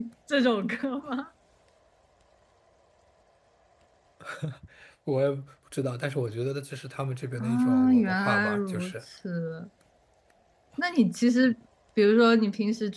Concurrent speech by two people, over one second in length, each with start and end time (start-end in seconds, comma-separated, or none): 7.4-8.9